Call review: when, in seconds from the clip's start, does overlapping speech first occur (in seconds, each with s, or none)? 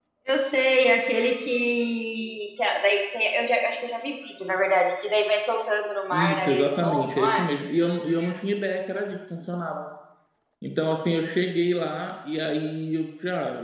6.1 s